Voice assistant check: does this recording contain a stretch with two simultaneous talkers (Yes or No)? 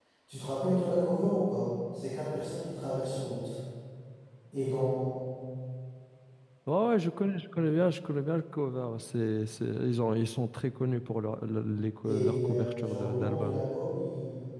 Yes